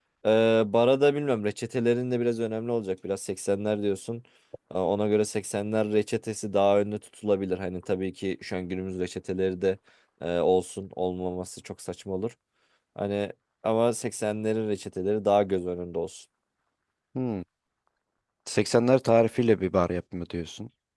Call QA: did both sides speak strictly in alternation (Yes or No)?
Yes